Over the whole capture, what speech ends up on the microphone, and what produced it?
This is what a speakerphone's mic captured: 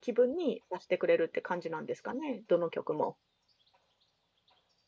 user only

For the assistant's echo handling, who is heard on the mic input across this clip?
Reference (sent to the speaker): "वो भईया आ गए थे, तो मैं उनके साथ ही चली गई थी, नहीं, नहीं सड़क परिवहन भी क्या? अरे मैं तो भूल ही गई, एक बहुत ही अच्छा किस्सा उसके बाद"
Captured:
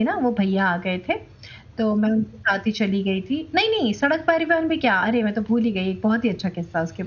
echo only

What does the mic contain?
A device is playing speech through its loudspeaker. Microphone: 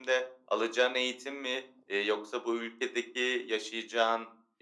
echo only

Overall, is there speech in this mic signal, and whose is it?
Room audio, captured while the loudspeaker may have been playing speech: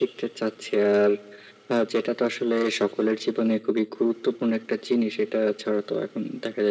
echo only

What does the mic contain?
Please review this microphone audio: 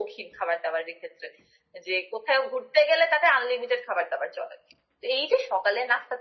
echo only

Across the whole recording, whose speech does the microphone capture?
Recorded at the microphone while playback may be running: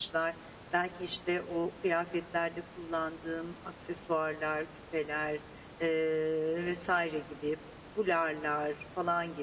user only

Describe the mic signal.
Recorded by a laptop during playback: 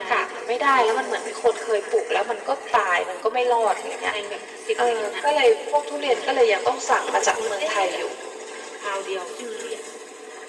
echo only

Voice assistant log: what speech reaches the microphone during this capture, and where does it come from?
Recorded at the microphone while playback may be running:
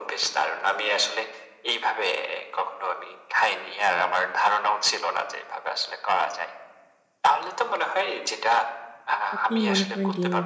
both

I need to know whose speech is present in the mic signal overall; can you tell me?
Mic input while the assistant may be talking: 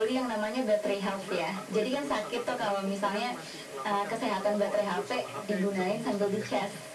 both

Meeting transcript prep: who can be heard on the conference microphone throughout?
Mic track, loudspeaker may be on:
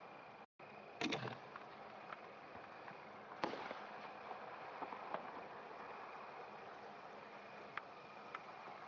neither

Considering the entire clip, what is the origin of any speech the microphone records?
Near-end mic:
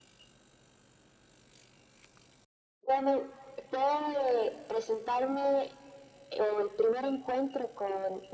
echo only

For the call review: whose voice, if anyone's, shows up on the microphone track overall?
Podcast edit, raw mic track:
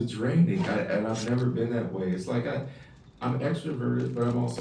echo only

